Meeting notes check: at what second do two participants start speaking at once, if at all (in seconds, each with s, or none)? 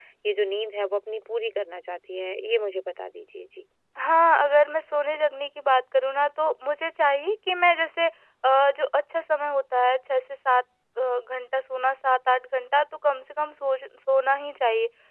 none